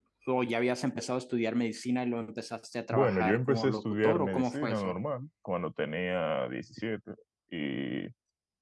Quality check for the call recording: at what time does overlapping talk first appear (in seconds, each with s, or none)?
2.9 s